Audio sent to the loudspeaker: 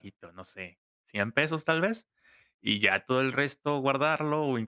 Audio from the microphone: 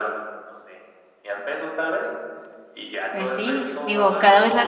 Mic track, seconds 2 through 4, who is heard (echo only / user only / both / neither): both